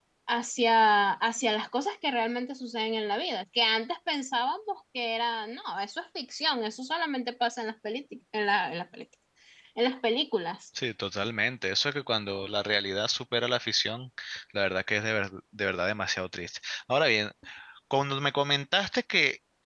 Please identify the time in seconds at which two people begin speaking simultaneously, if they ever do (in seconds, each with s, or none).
none